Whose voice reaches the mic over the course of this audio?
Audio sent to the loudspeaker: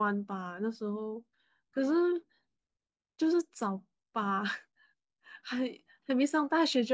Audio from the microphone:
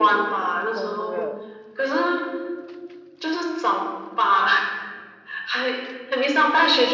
both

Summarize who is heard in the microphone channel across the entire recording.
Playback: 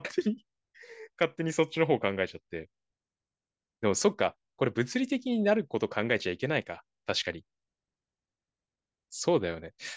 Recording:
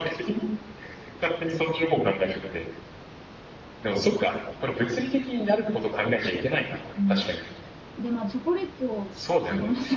both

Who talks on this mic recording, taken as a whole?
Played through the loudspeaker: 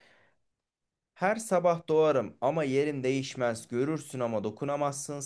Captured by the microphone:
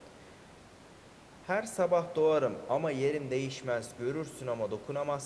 echo only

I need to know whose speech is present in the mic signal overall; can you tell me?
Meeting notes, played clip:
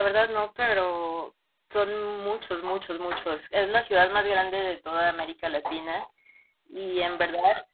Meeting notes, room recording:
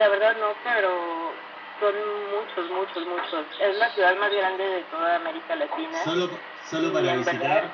both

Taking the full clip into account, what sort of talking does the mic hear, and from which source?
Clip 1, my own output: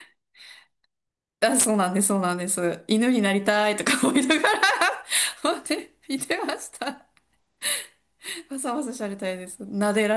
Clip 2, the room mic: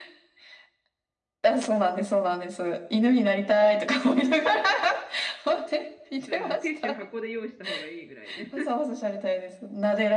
both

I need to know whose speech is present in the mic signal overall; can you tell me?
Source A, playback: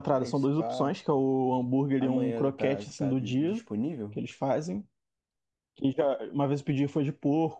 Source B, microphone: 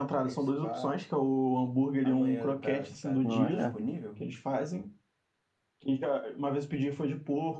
both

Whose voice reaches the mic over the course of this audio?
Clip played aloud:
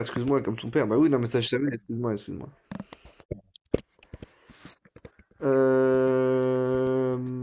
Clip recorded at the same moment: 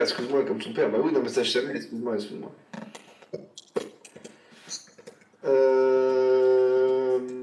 echo only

